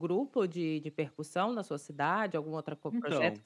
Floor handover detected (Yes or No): No